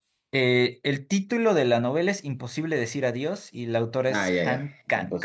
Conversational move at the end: taking over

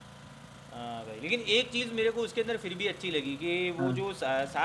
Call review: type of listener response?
listening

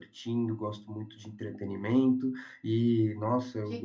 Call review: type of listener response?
listening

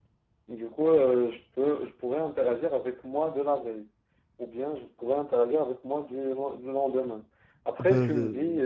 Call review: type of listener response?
taking over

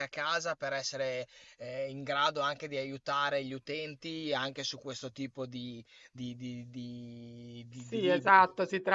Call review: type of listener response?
taking over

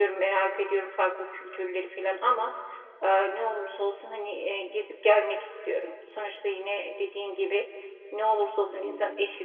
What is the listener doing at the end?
listening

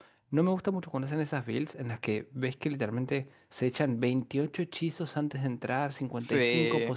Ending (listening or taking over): listening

